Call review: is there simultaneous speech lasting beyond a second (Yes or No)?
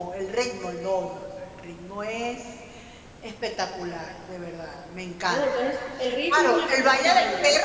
Yes